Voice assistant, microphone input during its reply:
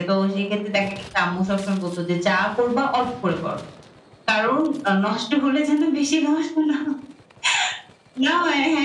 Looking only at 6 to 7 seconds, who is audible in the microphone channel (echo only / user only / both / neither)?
echo only